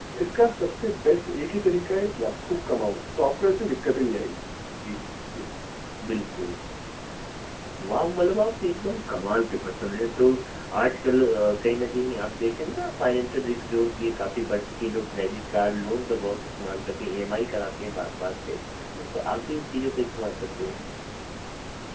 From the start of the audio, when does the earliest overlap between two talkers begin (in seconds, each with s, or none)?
none